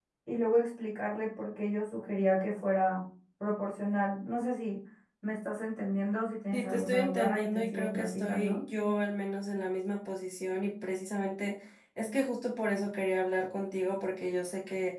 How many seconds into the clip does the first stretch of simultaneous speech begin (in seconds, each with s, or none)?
6.5 s